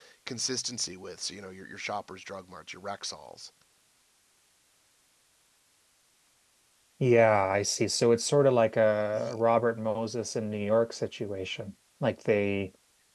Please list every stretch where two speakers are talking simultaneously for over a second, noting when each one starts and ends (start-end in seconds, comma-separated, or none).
none